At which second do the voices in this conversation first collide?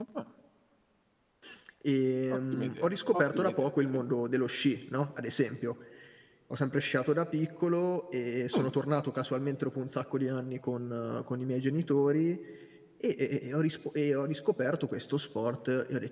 2.3 s

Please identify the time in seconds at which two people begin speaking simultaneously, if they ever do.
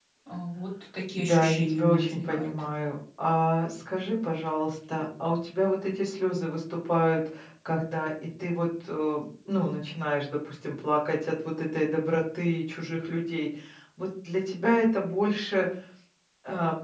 1.2 s

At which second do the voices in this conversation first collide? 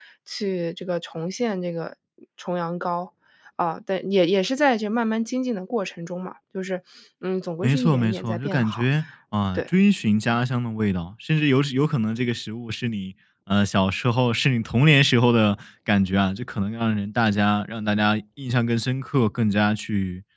7.6 s

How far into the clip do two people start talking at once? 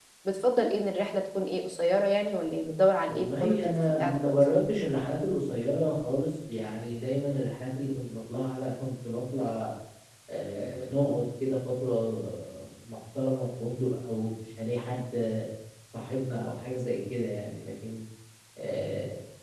3.1 s

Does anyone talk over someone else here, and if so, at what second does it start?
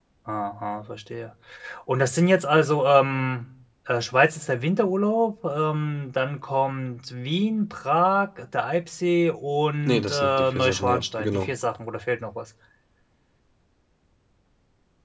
9.8 s

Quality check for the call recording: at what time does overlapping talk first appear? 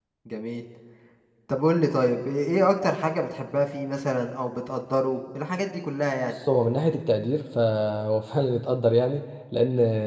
none

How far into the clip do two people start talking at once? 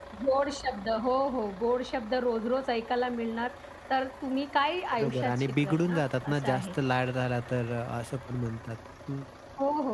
4.9 s

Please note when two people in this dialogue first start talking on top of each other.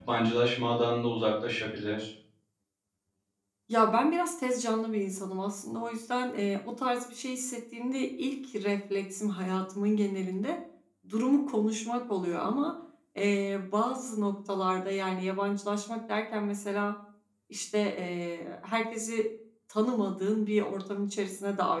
none

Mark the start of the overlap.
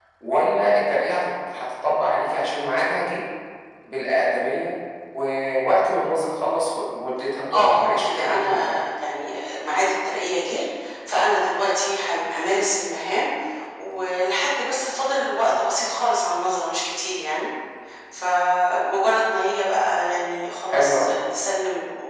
7.5 s

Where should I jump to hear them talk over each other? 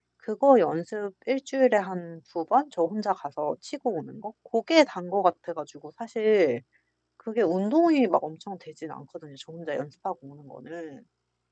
none

